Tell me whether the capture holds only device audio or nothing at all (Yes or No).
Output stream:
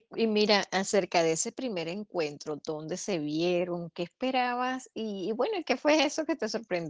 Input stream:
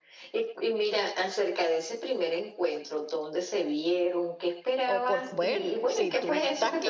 No